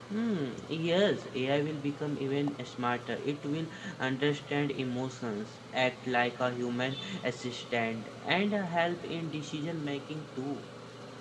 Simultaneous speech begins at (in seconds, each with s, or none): none